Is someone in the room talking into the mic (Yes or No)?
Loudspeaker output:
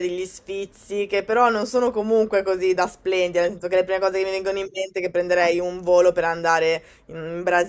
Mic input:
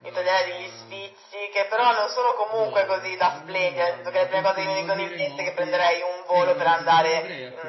Yes